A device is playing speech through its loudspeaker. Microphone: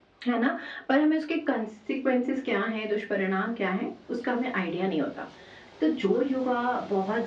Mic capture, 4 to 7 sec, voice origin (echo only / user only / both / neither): echo only